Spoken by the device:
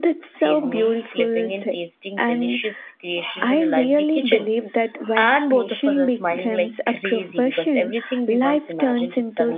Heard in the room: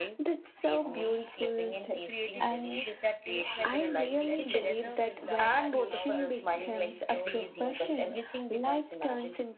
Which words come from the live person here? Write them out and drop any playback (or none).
creating food that tastes like memories and together we'll laugh at how our dreams slowly turn into our daily life.